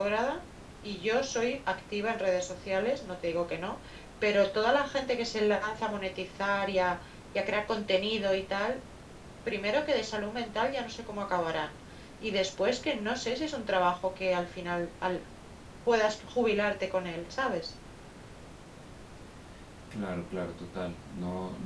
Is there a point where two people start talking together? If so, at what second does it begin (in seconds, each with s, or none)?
none